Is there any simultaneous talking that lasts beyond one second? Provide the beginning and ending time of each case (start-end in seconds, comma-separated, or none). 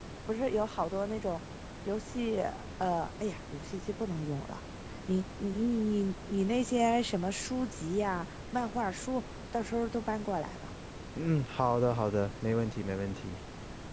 none